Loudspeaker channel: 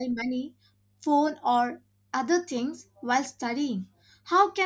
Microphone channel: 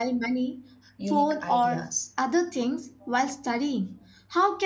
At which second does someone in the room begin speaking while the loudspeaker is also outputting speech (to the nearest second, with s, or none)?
1 s